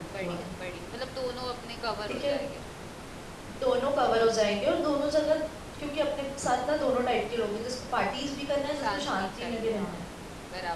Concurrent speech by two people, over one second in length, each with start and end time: 8.8-10.0

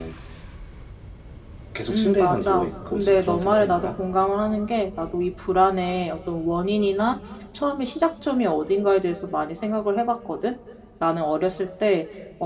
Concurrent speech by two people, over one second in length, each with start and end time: 1.9-3.9

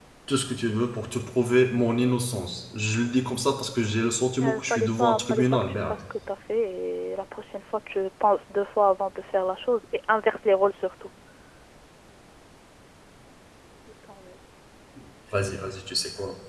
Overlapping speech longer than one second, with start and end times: 4.4-5.9

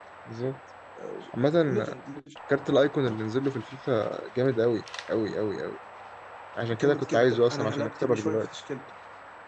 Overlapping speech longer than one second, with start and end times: 6.7-8.5

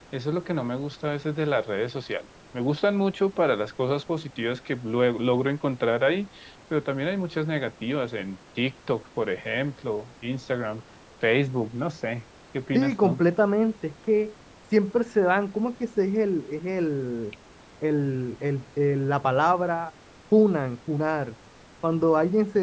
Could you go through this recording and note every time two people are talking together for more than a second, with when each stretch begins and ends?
none

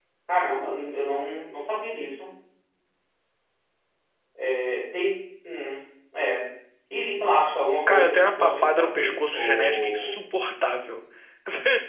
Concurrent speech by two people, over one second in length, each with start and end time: 7.9-10.1

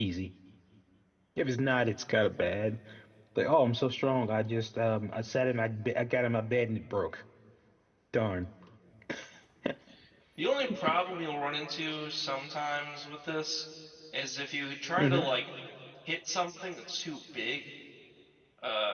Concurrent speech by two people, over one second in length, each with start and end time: none

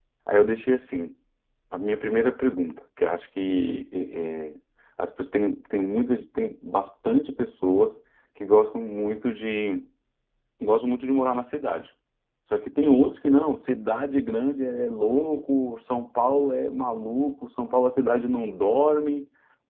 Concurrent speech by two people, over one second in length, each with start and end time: none

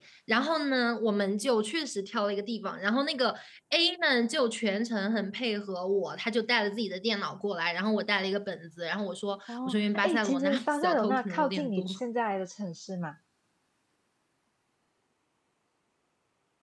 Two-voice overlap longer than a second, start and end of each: 9.5-11.8

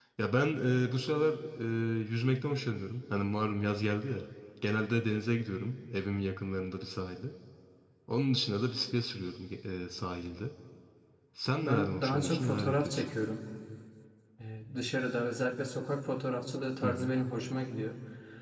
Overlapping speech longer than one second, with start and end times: 11.6-13.0

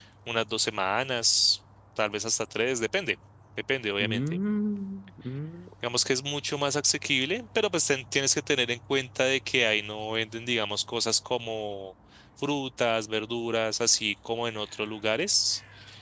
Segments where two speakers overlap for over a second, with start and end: none

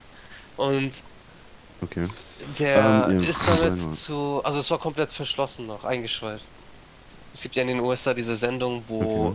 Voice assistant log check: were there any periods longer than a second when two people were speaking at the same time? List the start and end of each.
2.7-4.0

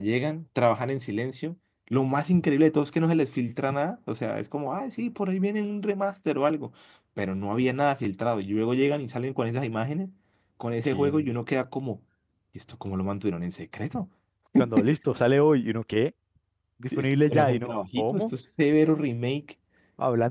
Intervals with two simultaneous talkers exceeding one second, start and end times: 17.0-18.2

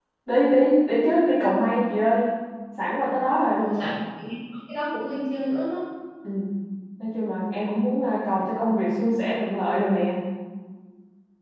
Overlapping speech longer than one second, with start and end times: none

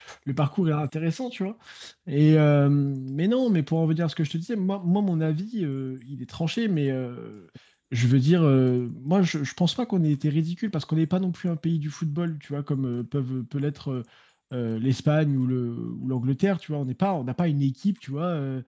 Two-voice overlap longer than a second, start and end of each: none

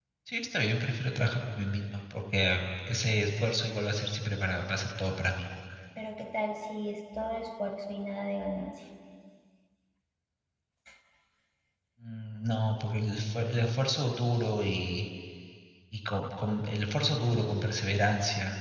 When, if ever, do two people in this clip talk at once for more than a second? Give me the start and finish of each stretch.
none

